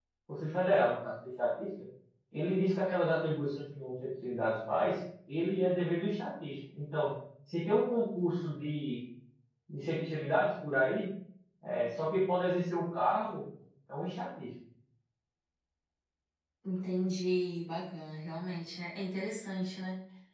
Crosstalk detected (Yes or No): No